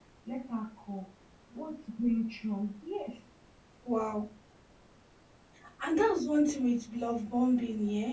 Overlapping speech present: No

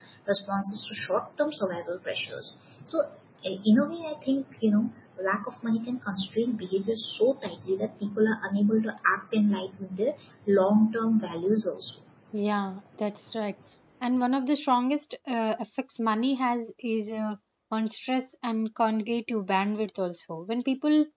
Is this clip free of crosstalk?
Yes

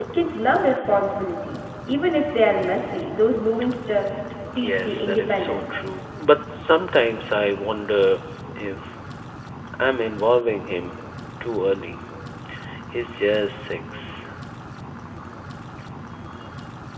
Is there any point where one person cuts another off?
Yes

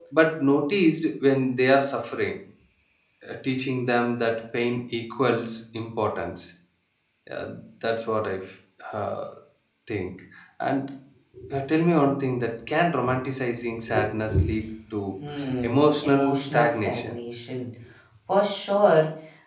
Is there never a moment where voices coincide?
No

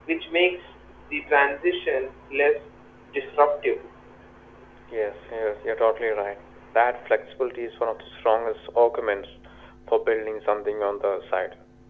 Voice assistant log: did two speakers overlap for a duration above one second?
No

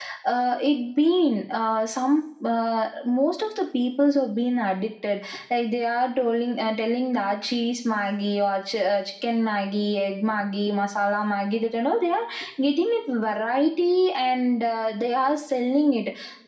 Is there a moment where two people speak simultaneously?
No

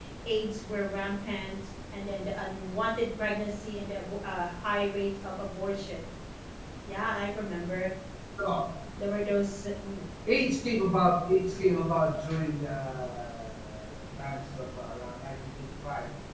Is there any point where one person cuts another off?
No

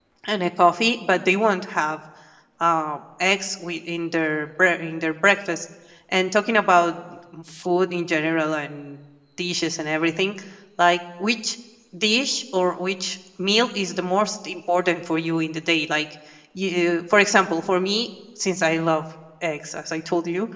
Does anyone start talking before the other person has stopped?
No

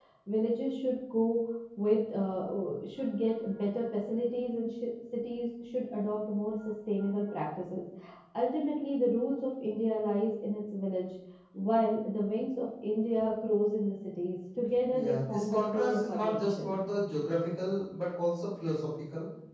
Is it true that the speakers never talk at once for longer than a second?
No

